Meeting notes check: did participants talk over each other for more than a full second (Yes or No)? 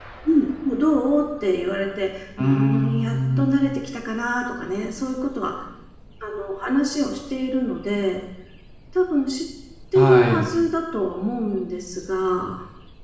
Yes